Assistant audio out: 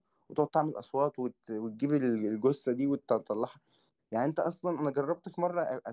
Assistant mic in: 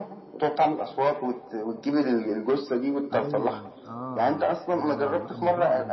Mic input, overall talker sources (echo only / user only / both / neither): both